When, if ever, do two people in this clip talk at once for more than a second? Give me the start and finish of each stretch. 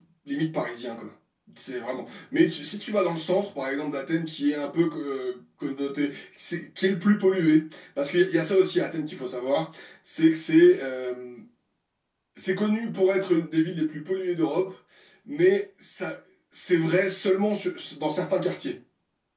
none

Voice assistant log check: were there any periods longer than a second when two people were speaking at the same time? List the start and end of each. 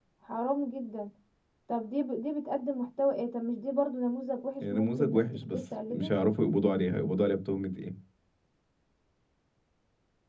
4.6-6.1

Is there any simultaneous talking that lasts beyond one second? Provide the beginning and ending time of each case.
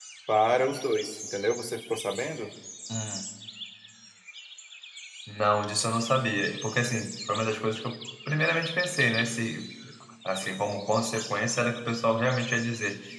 none

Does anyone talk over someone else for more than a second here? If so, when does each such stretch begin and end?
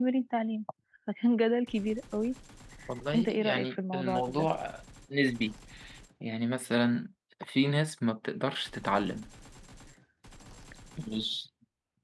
3.1-4.5

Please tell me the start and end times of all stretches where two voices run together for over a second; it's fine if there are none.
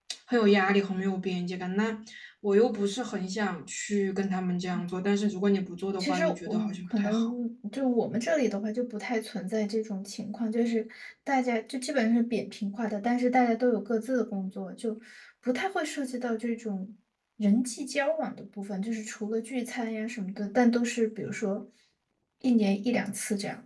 6.0-7.3

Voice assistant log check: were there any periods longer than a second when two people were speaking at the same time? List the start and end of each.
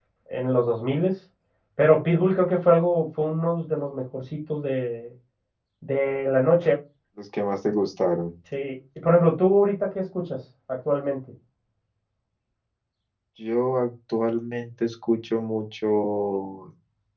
none

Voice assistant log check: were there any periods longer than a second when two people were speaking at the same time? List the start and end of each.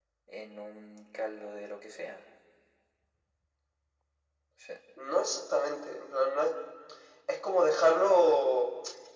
none

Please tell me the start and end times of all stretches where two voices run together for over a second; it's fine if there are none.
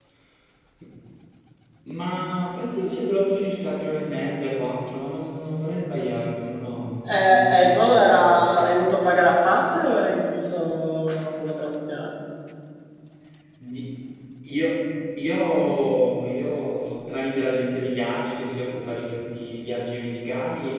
7.0-8.6

